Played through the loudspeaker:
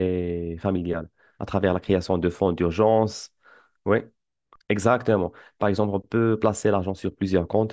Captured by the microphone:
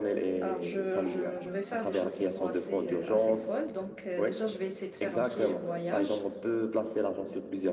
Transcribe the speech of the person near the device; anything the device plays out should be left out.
alors je, je, je vais faire des choses qui sont assez, euh, assez folles. Donc, euh, déjà, je vais essayer de faire un petit voyage.

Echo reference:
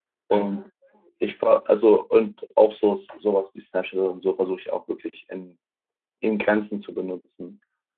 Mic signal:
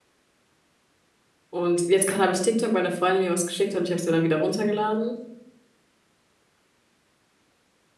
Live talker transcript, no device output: und jetzt gerade habe ich TikTok, weil eine Freundin mir was geschickt hat und ich habe es mir dann wieder runtergeladen.

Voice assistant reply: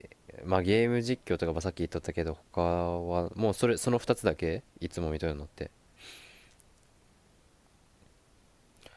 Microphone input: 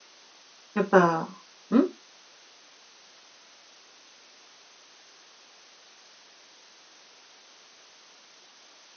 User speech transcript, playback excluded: やっぱ、ん

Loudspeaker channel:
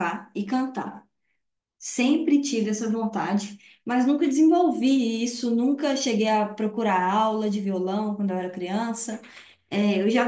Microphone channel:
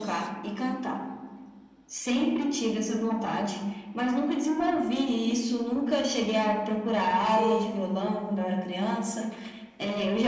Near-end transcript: sim

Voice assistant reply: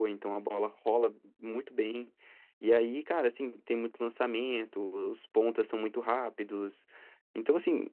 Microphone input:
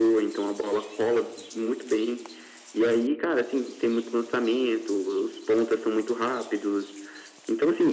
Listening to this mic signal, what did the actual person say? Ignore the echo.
none

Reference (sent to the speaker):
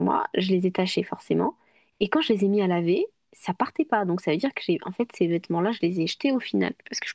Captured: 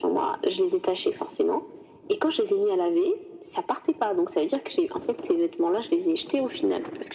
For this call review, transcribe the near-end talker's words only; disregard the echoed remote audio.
none

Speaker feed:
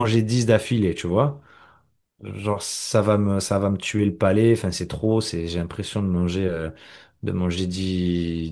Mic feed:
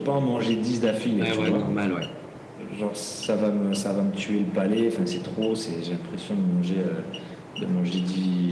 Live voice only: Ouais, ouais, normal, ouais.

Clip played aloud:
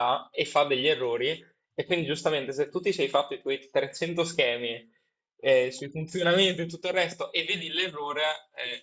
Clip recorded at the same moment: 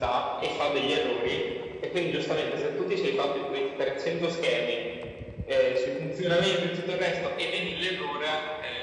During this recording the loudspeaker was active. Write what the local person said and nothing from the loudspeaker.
none

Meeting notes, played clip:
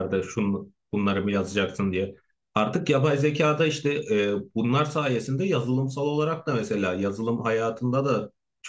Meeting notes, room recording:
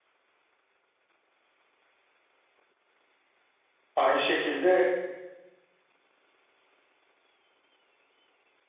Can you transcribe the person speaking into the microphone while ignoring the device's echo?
aynı şekilde

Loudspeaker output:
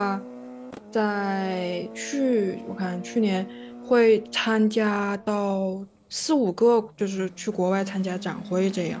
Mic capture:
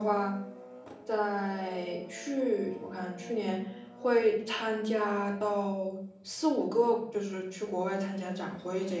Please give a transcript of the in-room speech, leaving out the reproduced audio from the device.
none

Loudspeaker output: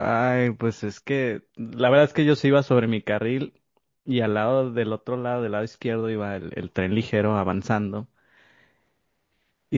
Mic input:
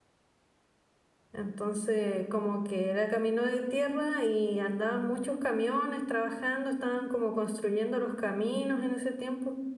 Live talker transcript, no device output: Entonces, como que era camino de tierra y andaban muchos camiones trabajando, estaban como construyendo los caminos en ese tiempo.

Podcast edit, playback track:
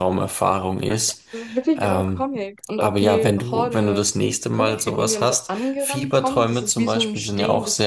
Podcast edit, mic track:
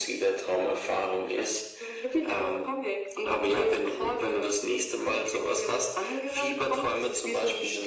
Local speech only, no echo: none

